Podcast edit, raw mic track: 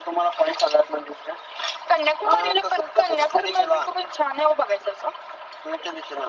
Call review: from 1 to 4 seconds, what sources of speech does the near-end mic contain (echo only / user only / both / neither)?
echo only